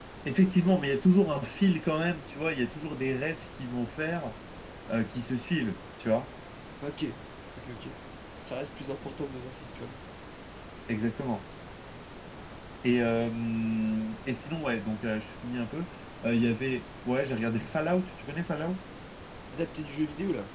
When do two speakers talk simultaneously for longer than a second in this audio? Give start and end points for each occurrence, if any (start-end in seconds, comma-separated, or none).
none